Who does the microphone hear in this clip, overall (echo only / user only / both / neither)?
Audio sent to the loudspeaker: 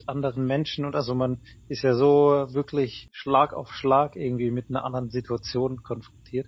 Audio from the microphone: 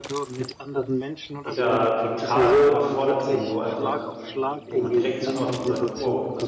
both